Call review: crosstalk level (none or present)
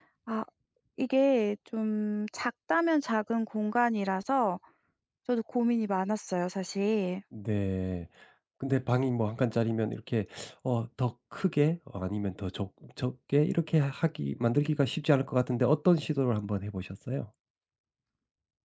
none